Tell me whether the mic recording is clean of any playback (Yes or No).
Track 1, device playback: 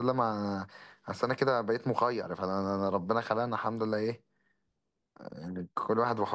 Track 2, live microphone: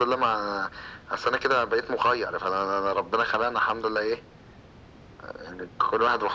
No